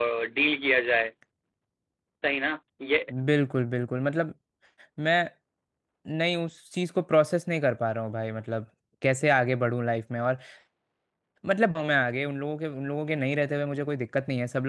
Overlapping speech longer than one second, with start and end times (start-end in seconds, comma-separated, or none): none